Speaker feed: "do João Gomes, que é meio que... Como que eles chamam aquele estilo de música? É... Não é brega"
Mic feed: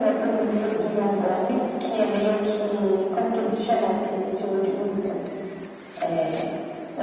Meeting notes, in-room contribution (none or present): none